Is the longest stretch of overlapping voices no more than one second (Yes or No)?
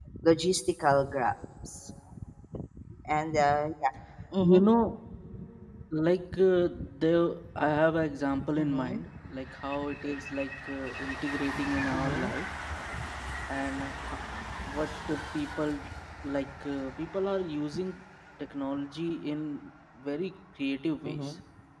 Yes